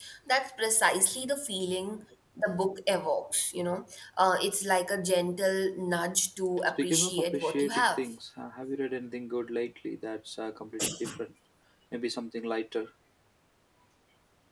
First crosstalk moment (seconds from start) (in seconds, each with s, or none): 6.8 s